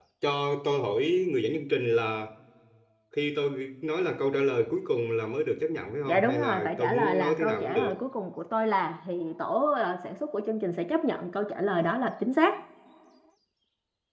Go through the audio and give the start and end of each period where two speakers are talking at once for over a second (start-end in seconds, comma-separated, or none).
6.1-8.0